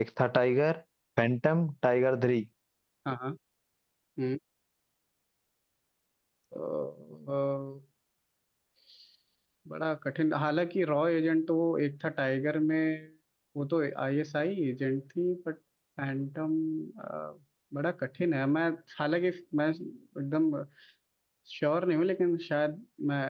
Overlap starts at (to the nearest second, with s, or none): none